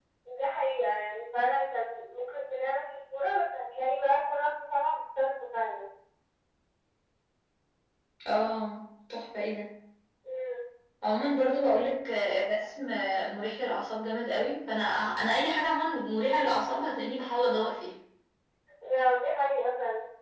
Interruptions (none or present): none